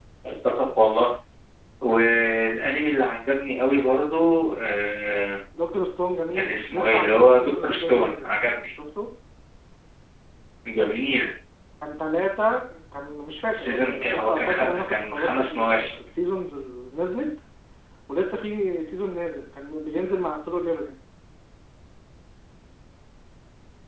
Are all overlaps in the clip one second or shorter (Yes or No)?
No